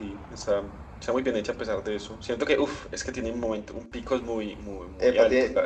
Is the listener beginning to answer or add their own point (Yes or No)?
Yes